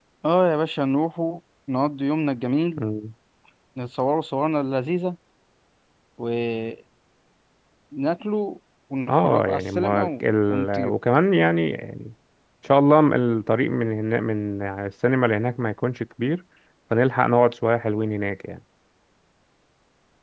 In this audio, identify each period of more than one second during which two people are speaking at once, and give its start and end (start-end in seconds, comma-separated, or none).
9.1-11.0